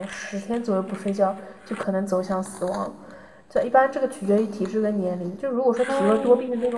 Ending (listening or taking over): listening